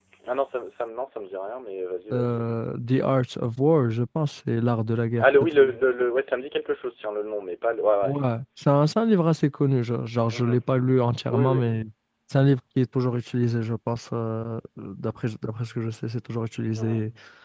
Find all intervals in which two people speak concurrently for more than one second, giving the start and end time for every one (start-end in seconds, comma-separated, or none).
none